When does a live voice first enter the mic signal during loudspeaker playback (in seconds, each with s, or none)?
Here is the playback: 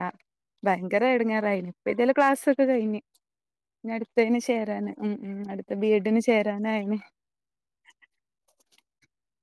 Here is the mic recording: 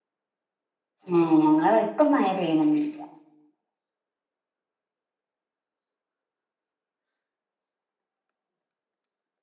1.1 s